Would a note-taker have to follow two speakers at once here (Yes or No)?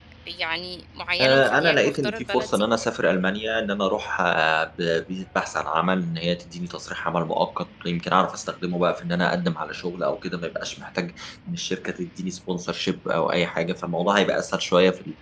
Yes